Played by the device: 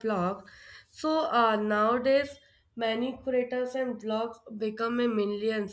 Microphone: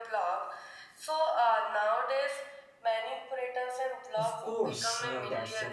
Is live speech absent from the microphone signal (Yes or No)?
No